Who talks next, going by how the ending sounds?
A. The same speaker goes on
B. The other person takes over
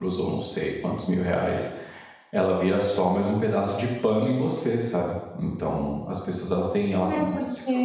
B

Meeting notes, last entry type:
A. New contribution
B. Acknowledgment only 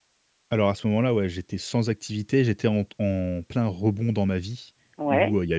B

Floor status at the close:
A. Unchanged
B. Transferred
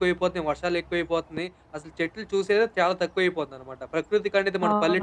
A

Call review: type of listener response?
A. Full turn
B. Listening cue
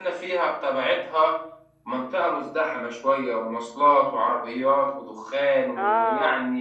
A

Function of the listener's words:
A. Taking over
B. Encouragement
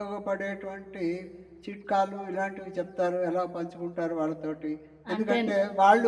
B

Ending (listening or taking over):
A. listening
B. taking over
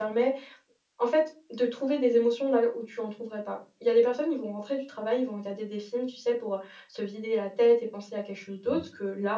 A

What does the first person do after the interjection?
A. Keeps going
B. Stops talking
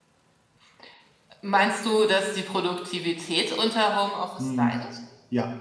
B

